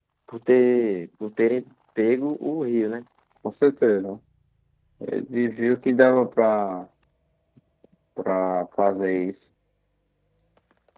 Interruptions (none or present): none